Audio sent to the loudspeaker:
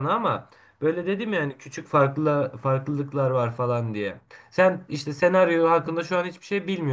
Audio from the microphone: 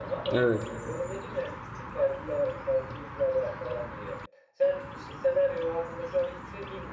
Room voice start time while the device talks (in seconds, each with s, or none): 0.3 s